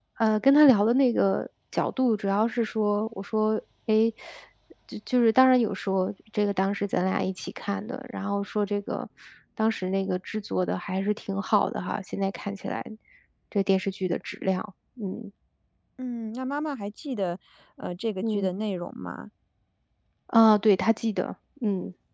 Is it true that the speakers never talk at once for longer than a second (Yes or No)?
Yes